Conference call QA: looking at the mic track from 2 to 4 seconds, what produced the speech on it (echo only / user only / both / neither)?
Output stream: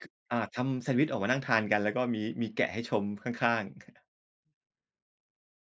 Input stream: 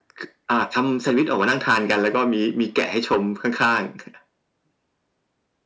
echo only